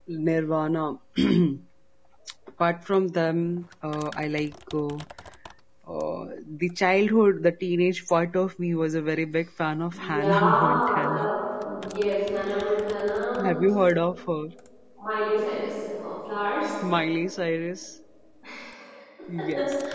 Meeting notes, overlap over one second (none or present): present